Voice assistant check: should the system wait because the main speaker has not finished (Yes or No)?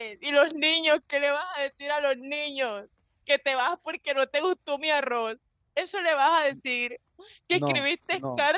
Yes